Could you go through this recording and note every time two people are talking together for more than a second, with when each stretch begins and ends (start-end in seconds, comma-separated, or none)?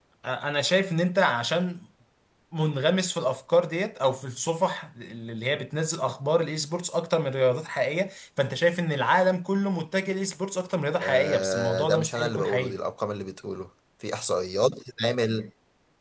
11.0-12.8